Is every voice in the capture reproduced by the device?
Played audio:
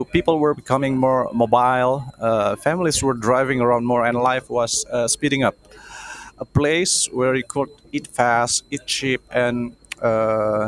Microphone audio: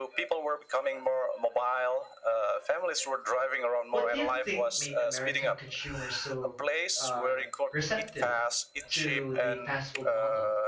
No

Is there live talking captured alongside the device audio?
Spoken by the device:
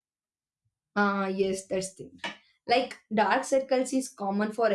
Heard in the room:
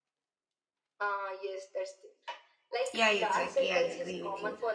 Yes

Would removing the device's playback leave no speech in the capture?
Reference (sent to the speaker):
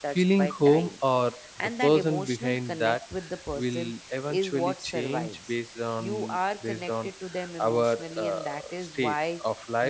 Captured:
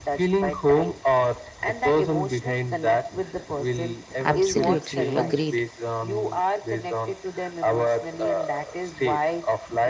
No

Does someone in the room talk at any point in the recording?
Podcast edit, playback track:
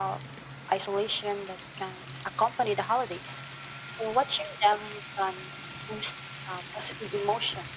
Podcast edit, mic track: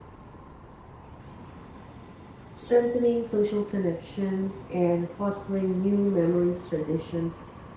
Yes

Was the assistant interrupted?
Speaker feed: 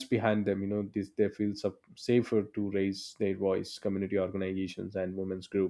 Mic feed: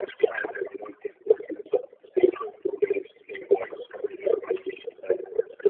No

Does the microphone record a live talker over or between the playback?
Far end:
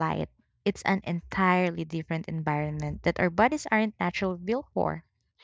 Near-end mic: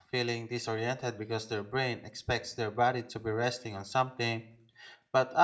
Yes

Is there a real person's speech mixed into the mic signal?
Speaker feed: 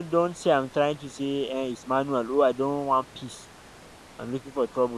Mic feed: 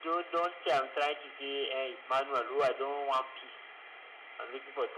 No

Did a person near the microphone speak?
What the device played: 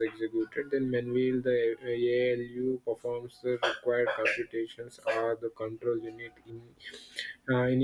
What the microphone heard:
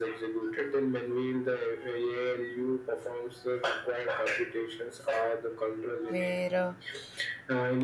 Yes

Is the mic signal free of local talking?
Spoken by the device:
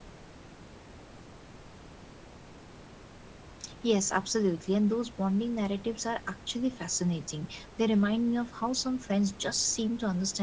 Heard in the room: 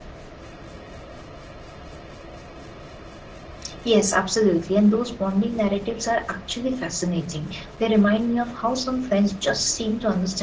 Yes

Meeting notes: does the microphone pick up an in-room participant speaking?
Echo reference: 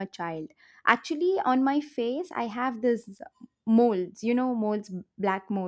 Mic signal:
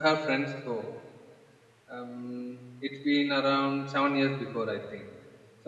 Yes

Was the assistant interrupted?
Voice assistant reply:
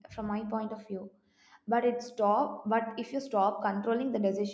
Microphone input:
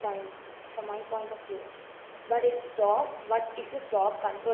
No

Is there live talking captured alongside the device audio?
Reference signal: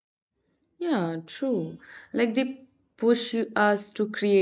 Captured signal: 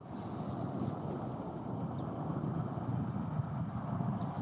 No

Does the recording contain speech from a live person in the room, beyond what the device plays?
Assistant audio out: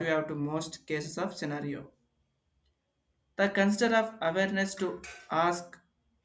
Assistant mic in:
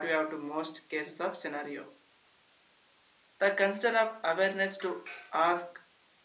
No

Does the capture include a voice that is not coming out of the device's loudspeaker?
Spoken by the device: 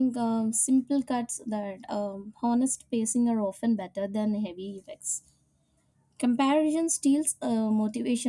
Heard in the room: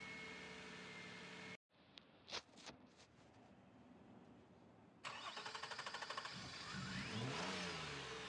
No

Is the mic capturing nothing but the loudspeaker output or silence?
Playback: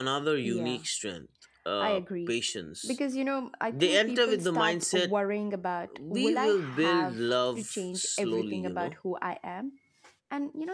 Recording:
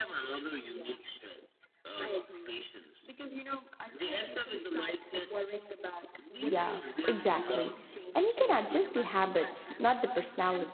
No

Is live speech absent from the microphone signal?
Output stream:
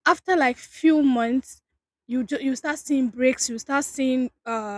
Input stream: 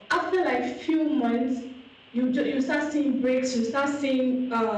Yes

